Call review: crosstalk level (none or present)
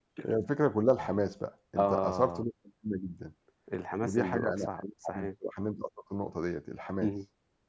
present